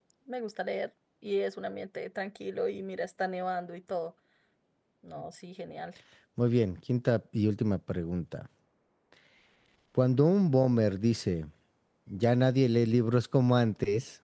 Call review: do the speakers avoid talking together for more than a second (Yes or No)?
Yes